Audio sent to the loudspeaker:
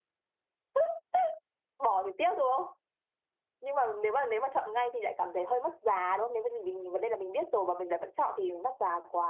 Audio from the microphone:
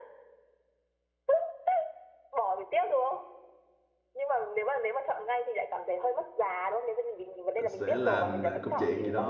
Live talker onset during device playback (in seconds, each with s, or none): 7.5 s